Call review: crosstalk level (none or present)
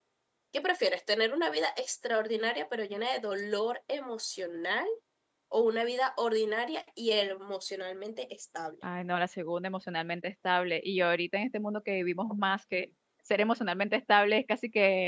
none